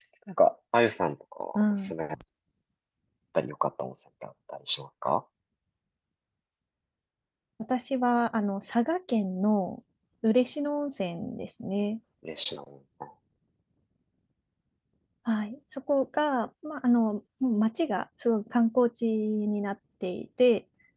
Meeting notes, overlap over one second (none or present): none